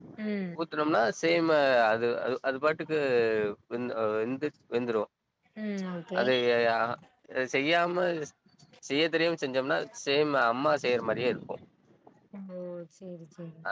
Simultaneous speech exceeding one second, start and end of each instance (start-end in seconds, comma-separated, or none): none